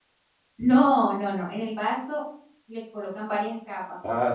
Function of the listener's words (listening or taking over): taking over